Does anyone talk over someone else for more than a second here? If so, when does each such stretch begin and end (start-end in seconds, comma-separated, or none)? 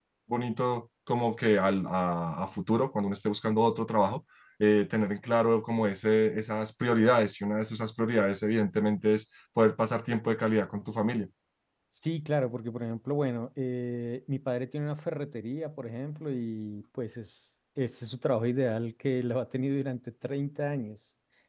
none